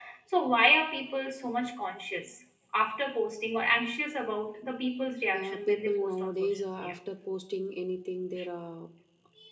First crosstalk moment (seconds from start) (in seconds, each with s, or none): 5.3 s